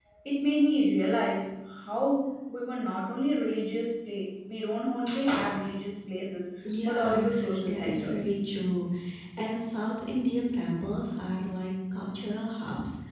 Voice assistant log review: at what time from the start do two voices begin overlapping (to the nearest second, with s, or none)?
7 s